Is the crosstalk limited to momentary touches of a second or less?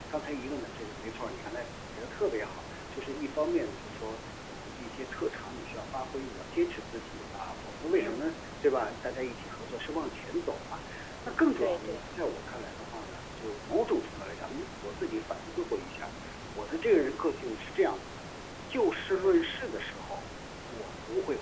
Yes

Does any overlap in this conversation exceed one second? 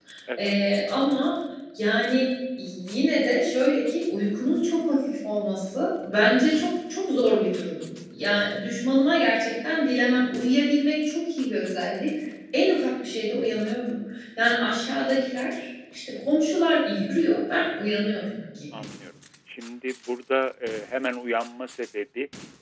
No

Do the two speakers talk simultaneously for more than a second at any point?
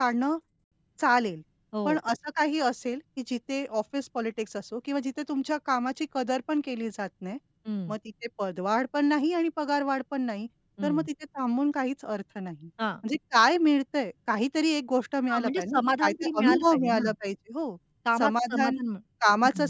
Yes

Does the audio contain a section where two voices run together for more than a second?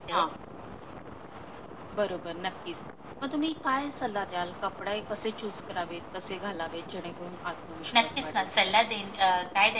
No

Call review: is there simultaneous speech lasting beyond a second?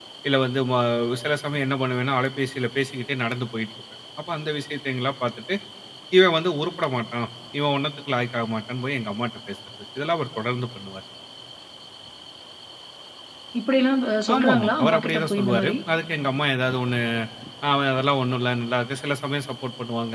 Yes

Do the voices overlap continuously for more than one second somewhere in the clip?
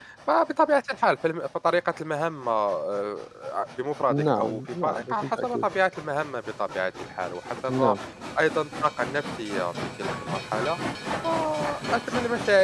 Yes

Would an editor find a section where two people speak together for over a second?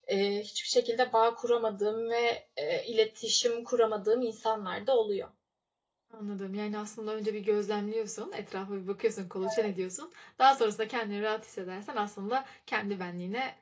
No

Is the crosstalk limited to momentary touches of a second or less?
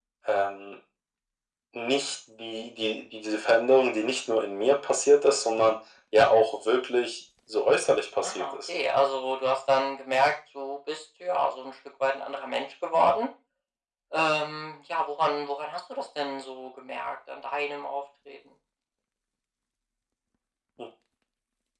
Yes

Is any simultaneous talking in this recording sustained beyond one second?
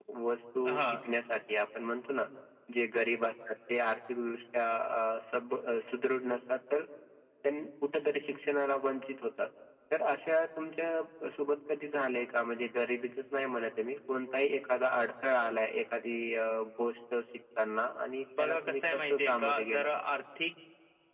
Yes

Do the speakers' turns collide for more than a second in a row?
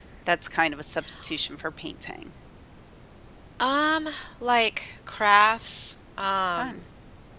No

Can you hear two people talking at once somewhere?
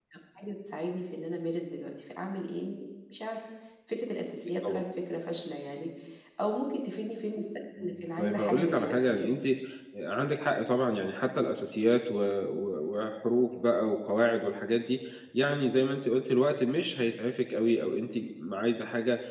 Yes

